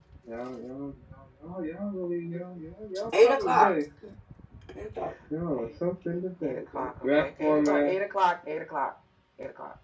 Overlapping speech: Yes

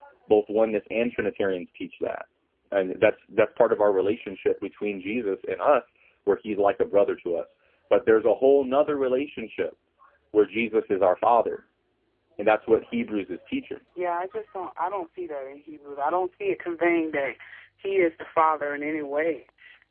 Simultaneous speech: No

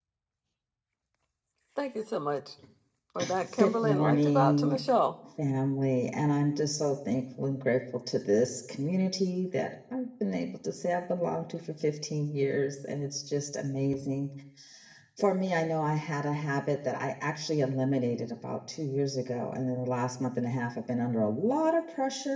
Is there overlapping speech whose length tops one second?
Yes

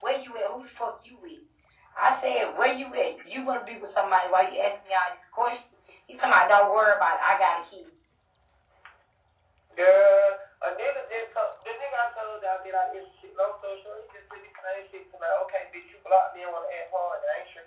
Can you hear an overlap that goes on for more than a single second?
No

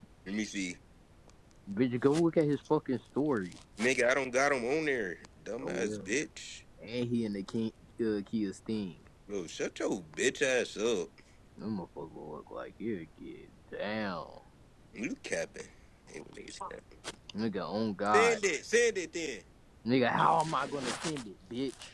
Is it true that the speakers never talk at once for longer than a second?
Yes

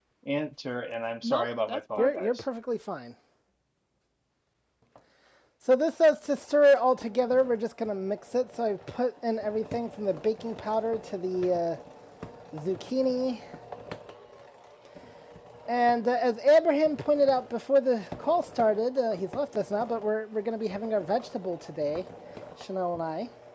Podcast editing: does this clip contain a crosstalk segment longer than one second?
Yes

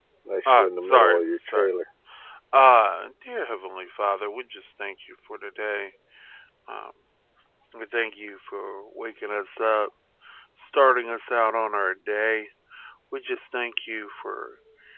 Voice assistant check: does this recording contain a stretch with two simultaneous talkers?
Yes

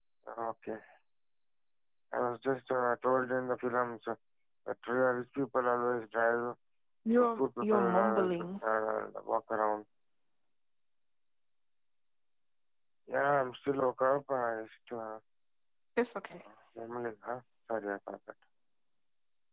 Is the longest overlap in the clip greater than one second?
Yes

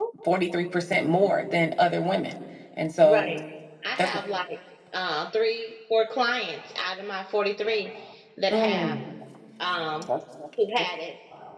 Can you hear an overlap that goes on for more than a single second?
No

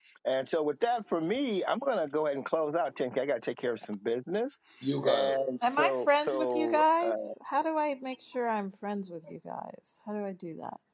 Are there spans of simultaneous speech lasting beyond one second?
Yes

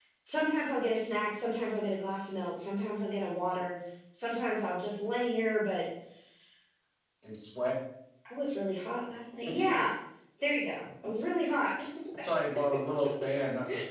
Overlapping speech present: No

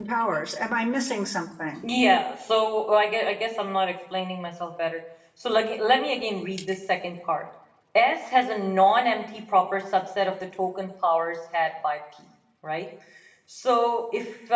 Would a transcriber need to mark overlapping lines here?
No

